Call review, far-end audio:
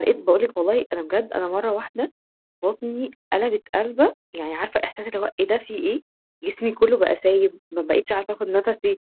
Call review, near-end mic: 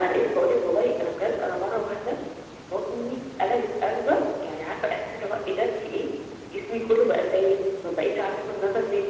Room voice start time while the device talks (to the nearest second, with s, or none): none